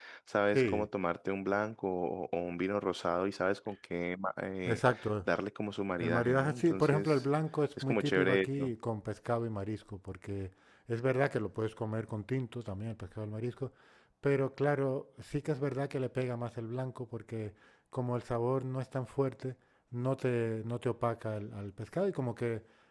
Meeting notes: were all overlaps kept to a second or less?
No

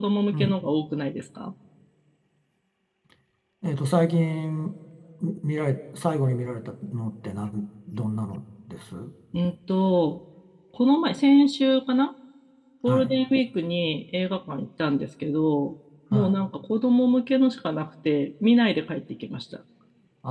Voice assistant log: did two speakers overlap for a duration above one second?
No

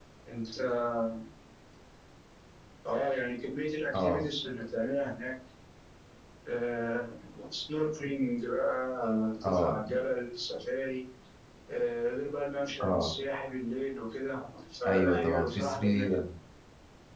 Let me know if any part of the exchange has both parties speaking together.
Yes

